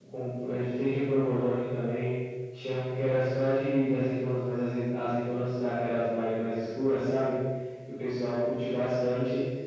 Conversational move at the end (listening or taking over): listening